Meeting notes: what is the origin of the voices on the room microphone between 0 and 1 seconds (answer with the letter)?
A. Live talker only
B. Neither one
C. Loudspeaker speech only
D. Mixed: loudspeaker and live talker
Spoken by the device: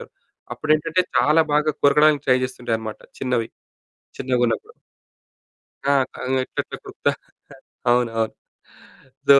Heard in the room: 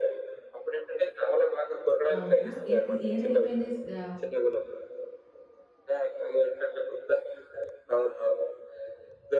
C